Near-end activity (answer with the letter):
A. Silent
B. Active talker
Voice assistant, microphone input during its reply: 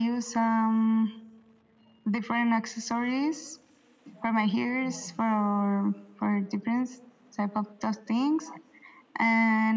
A